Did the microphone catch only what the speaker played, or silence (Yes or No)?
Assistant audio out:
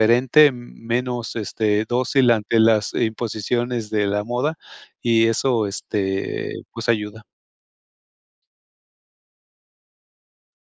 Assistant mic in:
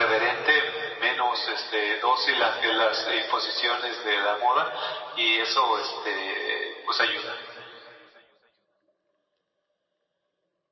Yes